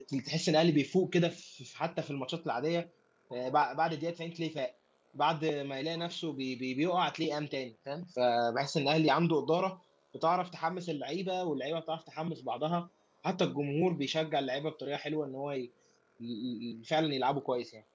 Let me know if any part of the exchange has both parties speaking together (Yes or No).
No